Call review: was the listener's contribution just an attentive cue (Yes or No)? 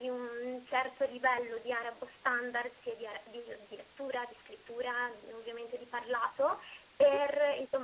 Yes